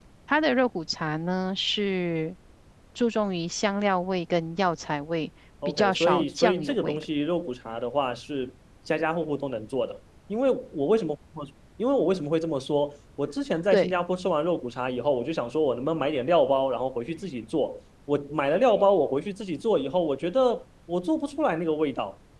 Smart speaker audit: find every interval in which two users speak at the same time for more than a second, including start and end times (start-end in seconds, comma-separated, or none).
5.7-7.0